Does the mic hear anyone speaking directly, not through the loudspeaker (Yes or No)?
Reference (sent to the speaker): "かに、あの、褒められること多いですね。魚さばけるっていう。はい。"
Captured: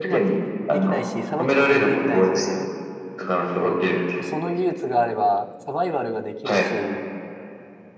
Yes